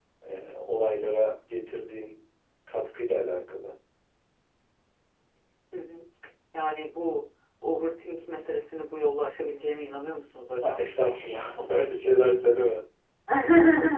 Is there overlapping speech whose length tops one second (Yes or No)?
No